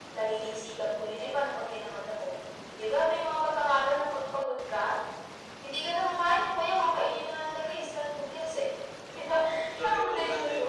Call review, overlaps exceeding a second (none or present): present